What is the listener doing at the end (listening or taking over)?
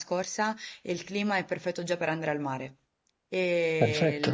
listening